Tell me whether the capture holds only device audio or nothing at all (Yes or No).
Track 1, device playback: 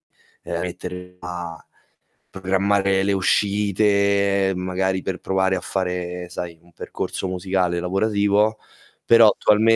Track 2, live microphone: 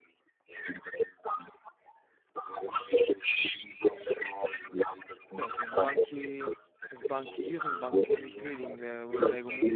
No